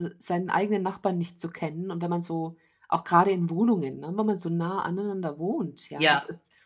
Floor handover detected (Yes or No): No